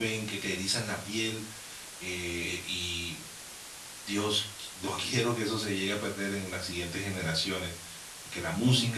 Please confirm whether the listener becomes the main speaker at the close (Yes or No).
No